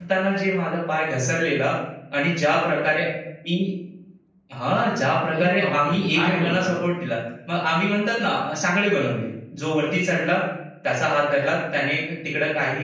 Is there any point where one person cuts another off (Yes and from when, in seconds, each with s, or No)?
Yes, from 5.4 s